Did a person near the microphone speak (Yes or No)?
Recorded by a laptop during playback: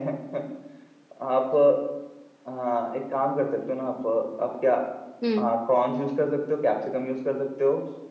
Yes